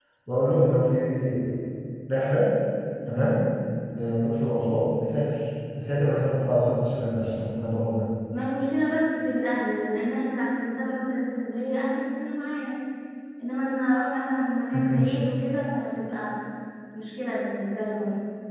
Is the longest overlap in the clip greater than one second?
No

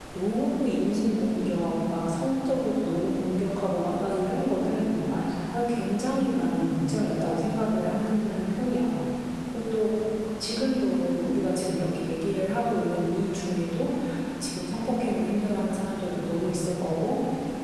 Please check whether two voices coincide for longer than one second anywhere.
No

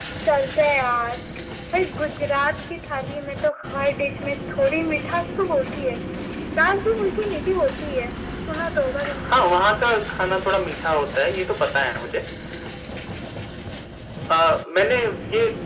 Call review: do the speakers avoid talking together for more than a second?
Yes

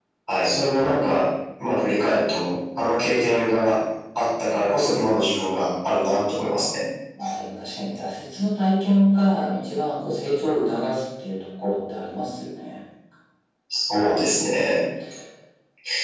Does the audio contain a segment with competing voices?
No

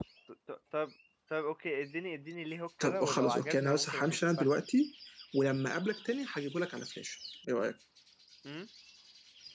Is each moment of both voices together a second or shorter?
No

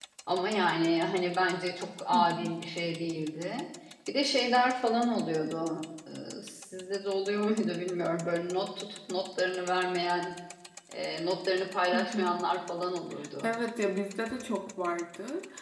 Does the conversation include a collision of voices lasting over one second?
No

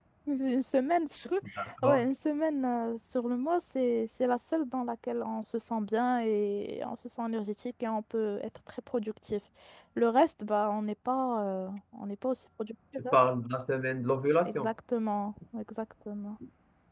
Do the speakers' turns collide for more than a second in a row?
No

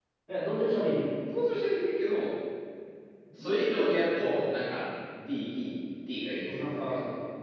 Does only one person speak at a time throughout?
No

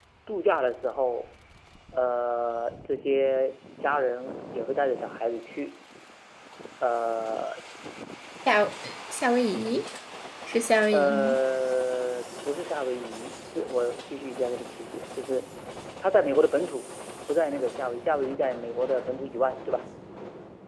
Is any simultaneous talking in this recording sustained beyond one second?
No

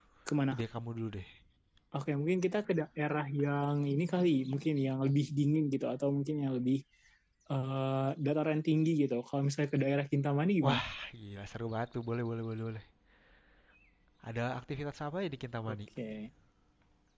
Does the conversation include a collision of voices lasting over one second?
No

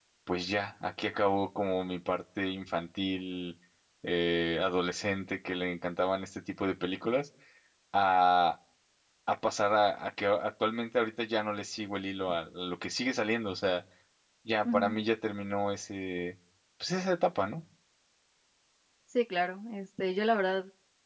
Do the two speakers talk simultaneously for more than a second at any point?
No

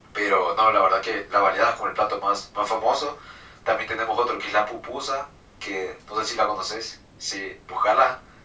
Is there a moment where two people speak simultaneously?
No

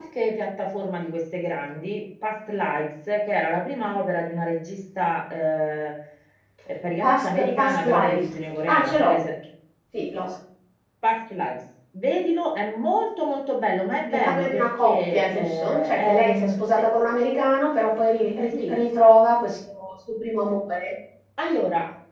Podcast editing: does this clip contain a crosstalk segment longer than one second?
Yes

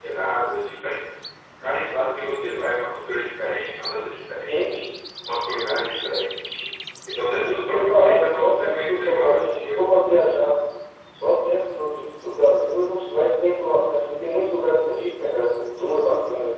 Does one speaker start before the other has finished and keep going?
Yes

